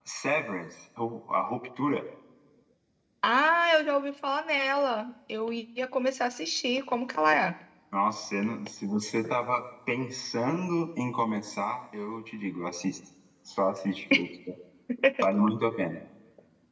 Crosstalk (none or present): none